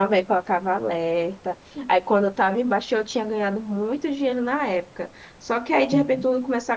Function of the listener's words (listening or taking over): listening